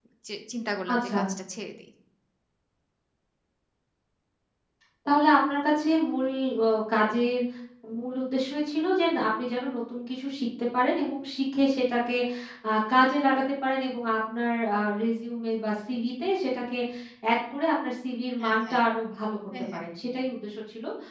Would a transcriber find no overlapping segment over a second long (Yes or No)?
Yes